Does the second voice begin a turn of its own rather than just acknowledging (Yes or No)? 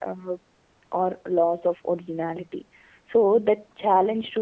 No